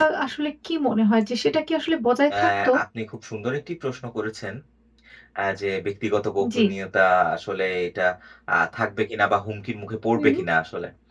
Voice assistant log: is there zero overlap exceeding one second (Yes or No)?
Yes